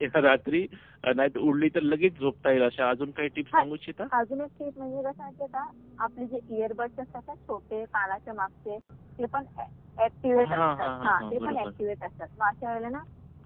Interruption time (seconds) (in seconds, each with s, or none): 10.4 s